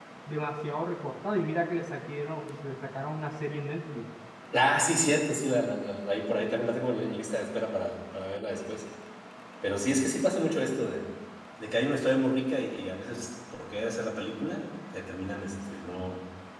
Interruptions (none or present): none